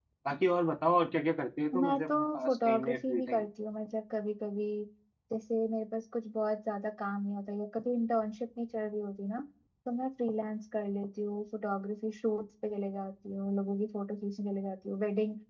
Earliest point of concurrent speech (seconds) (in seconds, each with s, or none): 1.7 s